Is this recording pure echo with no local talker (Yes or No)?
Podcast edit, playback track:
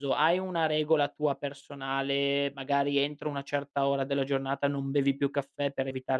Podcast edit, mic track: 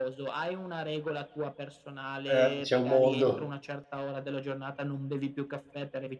No